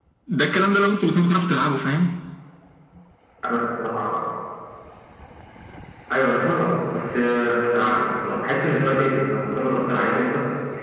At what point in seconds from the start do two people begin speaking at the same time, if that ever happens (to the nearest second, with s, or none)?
none